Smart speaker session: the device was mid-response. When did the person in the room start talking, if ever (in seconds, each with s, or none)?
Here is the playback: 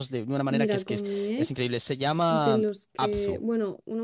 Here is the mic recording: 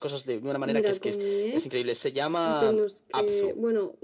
none